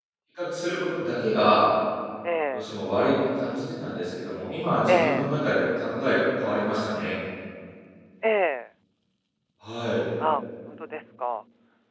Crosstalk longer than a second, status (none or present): none